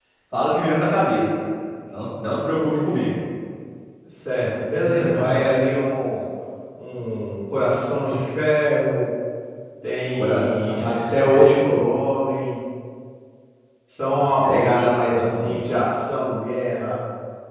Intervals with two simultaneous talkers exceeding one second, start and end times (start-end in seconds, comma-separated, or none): 10.1-11.8, 14.2-15.6